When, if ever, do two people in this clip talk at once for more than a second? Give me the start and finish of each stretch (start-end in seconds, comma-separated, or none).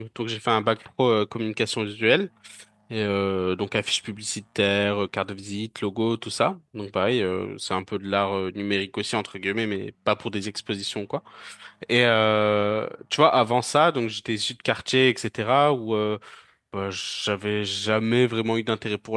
none